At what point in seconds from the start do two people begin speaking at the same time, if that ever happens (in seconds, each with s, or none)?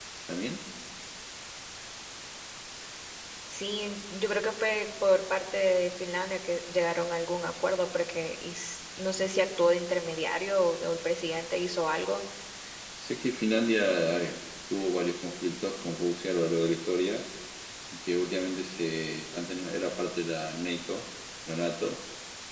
none